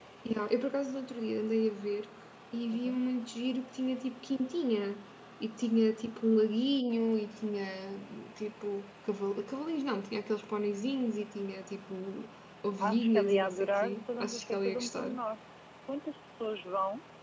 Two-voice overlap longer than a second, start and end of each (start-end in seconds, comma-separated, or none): 12.8-15.2